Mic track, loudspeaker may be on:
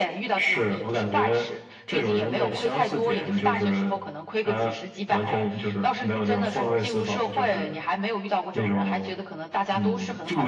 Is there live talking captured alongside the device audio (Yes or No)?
No